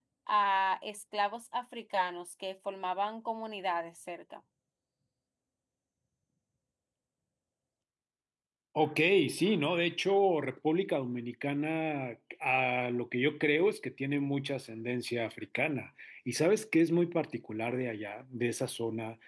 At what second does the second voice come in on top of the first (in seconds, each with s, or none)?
none